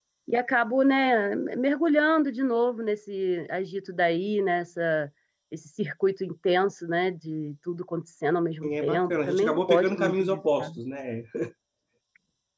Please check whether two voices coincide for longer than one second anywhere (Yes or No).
Yes